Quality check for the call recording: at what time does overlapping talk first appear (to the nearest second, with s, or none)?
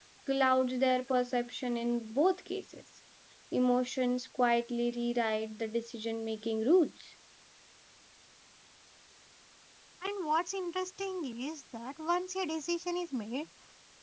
none